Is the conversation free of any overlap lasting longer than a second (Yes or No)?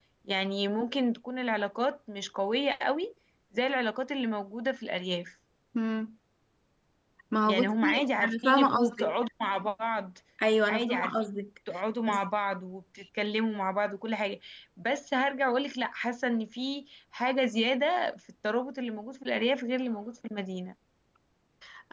No